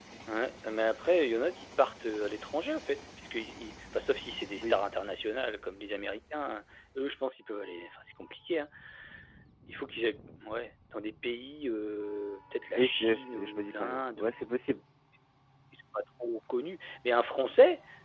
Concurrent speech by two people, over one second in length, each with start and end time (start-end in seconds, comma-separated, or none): 12.8-14.3